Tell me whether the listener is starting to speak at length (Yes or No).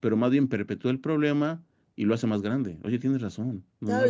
Yes